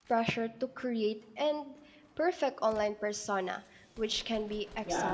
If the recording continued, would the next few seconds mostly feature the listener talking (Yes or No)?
Yes